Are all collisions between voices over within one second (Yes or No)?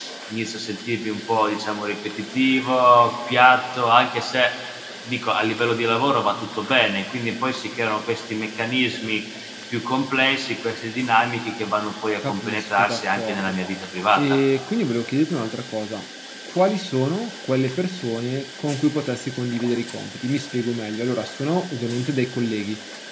No